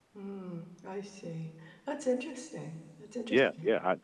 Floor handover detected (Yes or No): Yes